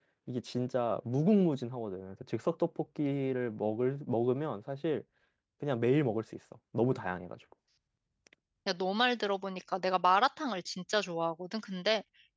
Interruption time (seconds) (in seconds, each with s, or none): none